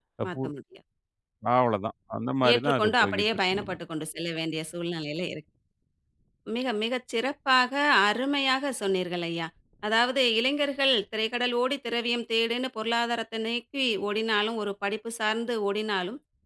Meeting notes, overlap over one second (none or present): present